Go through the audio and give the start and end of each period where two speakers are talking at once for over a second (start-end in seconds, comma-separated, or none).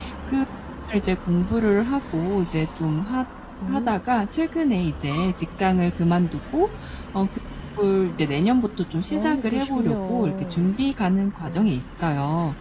9.1-10.5